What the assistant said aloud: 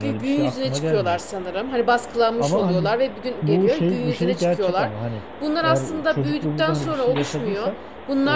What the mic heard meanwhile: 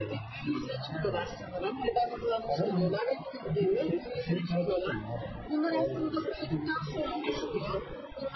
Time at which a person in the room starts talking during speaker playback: none

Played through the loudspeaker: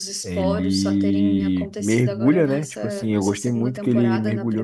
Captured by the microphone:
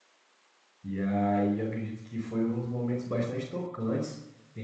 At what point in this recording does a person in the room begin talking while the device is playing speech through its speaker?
0.8 s

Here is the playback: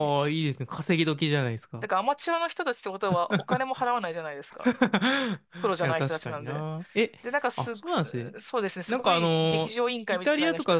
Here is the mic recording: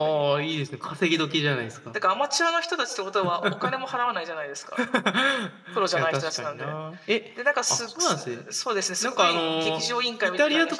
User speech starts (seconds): none

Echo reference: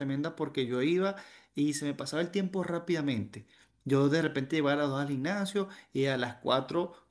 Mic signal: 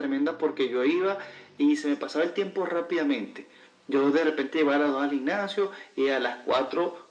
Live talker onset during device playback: none

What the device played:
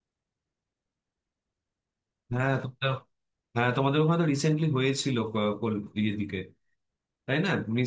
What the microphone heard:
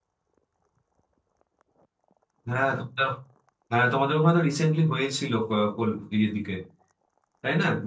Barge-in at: none

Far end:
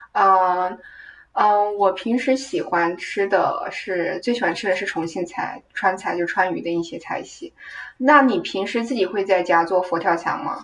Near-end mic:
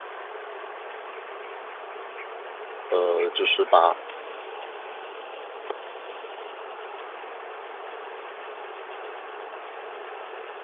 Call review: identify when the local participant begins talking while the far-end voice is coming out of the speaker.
2.9 s

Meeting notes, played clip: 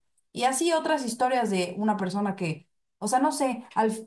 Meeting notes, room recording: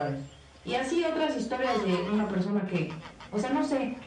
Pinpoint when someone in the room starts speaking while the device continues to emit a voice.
none

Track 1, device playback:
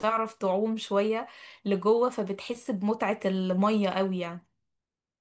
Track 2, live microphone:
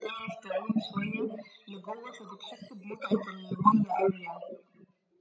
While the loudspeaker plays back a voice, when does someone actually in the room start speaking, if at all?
none

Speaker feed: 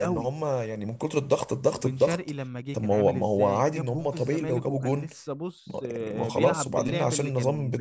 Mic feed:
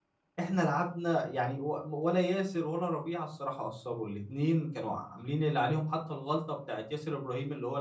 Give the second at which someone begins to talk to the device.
0.4 s

